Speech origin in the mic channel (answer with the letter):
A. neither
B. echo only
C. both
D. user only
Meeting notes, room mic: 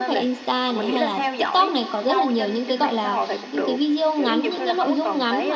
C